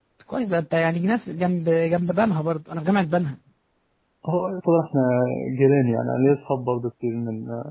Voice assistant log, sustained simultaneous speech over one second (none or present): none